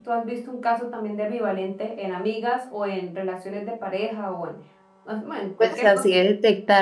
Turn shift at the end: Yes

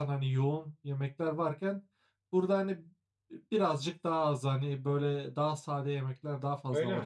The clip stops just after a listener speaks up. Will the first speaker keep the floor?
No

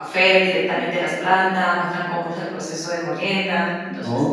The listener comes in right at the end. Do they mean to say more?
Yes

